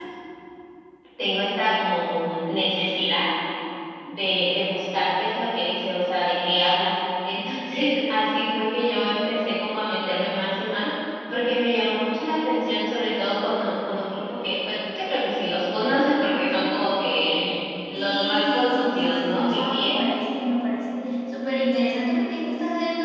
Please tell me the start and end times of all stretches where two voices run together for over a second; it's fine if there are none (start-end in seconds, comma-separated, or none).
18.0-20.0